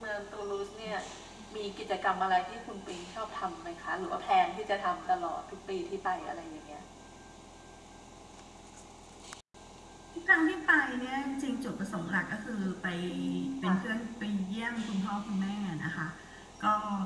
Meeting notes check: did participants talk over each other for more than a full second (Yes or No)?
No